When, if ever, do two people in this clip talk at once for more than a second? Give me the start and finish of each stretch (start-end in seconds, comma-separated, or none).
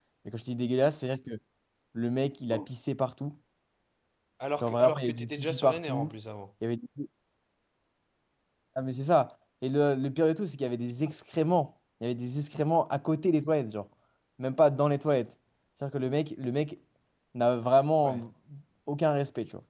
4.6-6.1